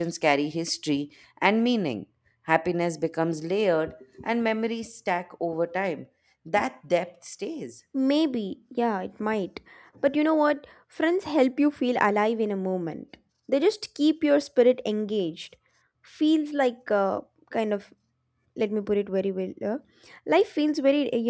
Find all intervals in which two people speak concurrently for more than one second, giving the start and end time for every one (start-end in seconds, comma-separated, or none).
none